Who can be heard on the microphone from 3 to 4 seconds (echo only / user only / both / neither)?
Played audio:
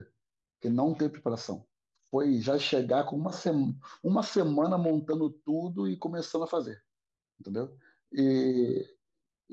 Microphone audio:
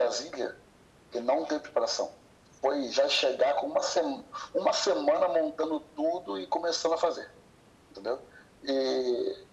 echo only